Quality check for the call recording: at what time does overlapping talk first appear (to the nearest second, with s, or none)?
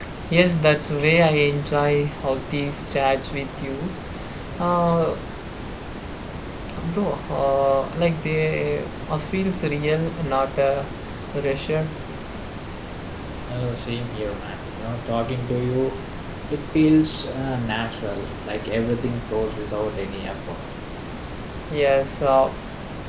none